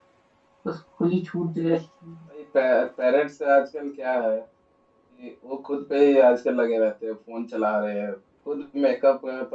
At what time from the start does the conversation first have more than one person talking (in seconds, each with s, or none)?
none